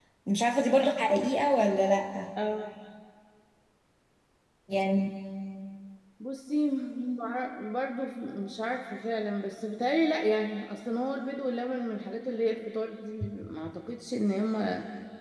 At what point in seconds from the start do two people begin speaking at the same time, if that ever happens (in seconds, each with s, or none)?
none